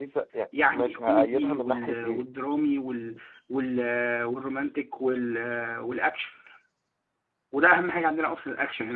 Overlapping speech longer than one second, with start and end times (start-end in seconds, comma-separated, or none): 0.7-2.3